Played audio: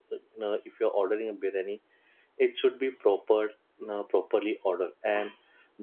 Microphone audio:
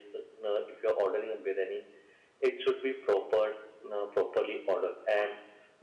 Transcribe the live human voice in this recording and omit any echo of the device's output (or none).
none